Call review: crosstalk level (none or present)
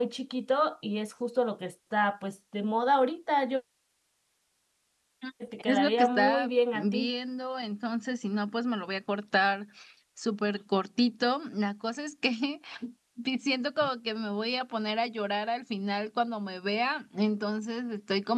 present